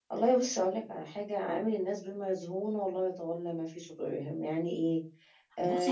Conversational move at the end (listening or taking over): taking over